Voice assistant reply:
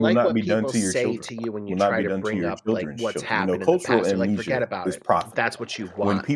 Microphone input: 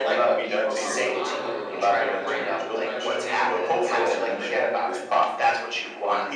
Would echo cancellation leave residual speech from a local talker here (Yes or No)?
Yes